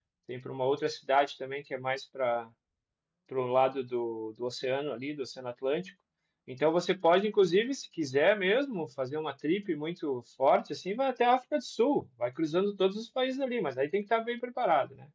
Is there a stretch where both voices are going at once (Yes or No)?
No